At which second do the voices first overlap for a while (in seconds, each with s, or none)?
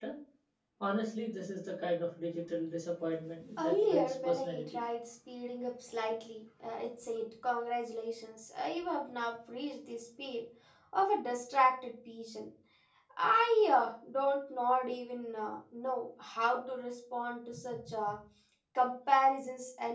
3.6 s